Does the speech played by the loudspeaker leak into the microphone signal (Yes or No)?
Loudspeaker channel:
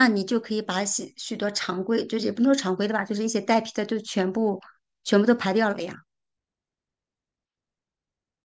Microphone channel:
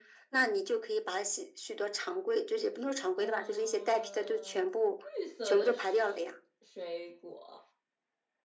Yes